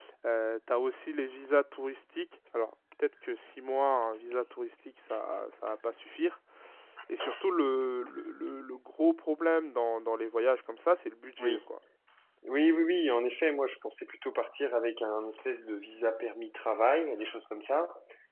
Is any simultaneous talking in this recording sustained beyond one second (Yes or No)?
No